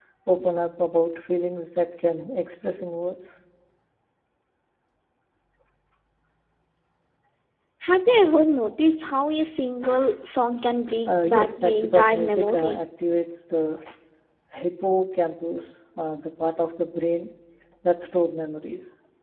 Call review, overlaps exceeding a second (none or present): present